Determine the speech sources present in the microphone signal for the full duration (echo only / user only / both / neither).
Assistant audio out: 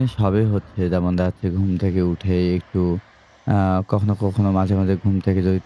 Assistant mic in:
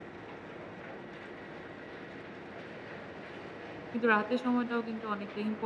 user only